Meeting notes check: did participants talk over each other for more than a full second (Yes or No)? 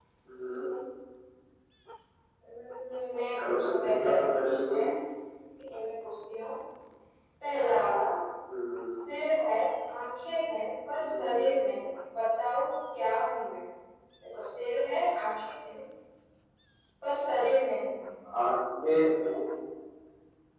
Yes